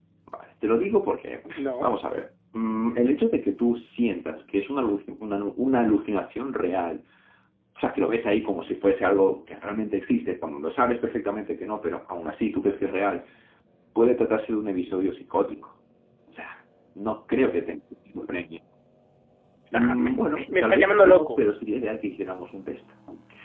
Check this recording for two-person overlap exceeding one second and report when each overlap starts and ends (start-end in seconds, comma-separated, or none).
19.7-21.4